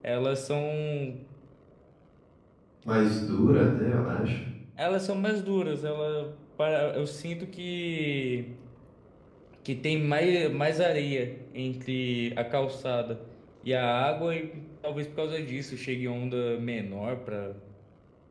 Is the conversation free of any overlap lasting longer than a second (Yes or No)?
Yes